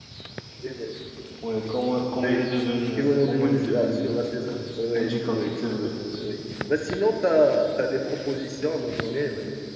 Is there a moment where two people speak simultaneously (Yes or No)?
Yes